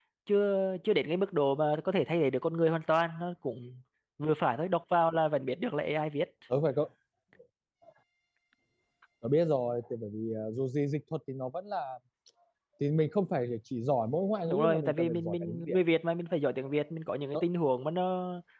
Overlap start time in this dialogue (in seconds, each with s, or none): 14.5 s